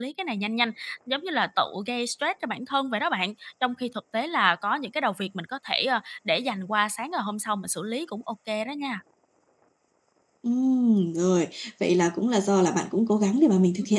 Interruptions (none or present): none